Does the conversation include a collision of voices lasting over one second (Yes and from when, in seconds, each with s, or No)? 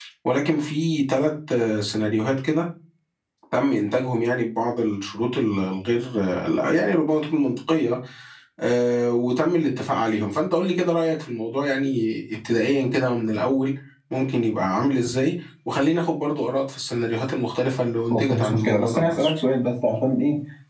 Yes, from 18.1 s